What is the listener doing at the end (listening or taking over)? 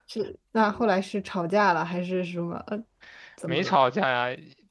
taking over